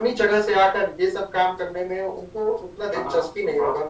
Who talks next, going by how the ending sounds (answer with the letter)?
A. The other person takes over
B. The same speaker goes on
A